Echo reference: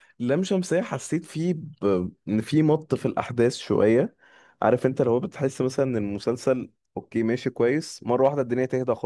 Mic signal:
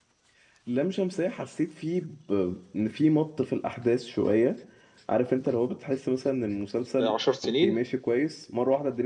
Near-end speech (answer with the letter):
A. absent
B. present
B